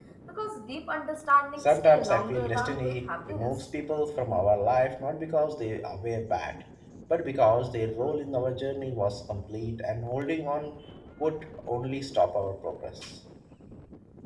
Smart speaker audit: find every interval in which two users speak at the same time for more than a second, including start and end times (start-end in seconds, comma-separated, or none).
1.6-3.5